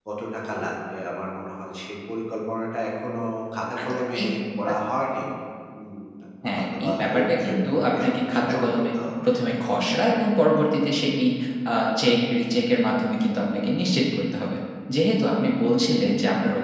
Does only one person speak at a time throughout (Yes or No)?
No